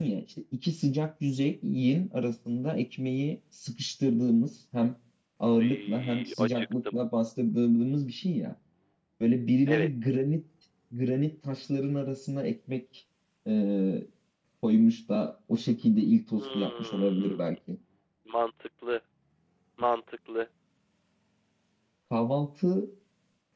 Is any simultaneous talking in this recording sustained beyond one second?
Yes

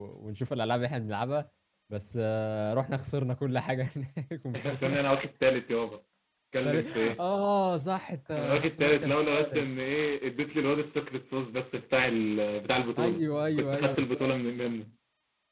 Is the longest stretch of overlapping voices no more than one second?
No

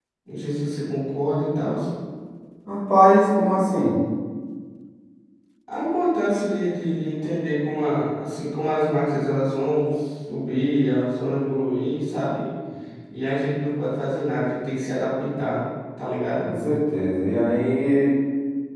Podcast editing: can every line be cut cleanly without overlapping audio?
Yes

